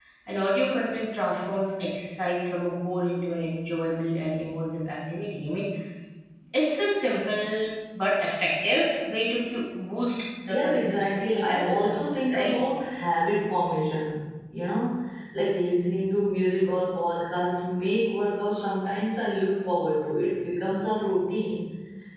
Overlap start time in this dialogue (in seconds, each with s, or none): 10.5 s